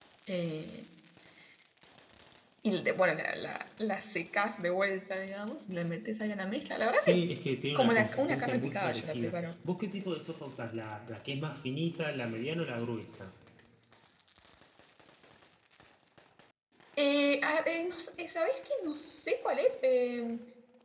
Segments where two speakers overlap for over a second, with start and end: 7.8-9.4

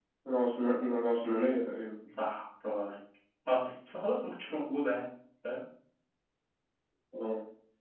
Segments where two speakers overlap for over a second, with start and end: none

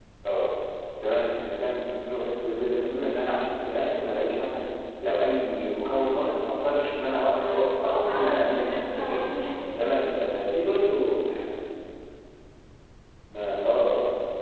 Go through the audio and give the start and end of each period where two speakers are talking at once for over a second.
7.4-9.3

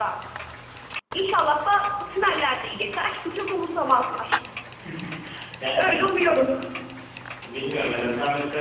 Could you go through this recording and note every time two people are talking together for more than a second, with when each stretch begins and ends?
none

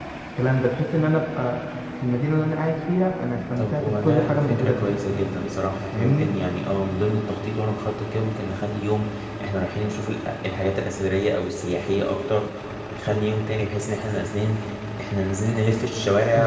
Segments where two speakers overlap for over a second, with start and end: 3.6-5.0

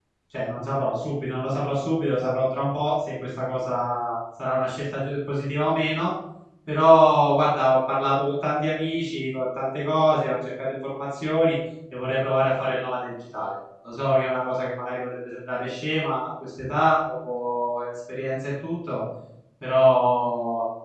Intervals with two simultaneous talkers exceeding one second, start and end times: none

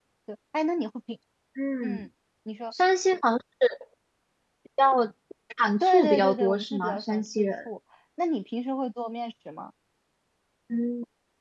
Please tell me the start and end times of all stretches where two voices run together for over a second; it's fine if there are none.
5.8-7.5

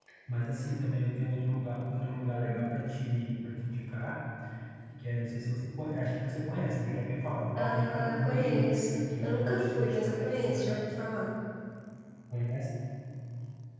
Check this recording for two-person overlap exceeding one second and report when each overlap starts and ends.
7.6-10.9

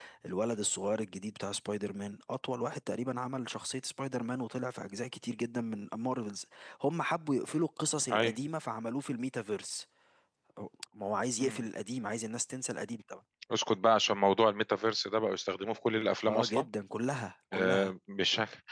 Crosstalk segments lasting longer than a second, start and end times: none

